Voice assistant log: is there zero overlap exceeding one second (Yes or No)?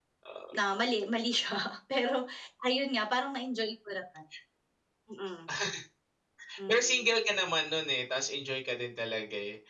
Yes